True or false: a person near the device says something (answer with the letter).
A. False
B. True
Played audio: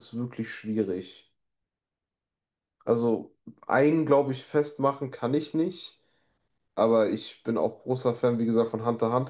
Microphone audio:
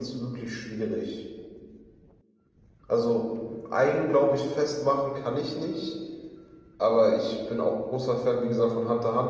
A